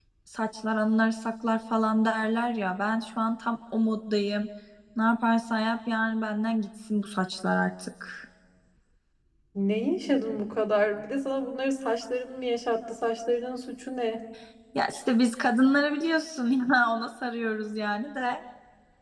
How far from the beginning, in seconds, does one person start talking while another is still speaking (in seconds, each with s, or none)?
none